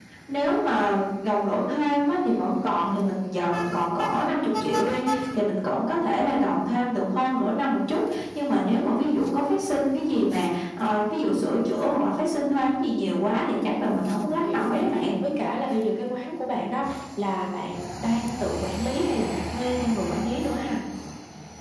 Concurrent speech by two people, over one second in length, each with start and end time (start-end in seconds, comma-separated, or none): 13.6-15.1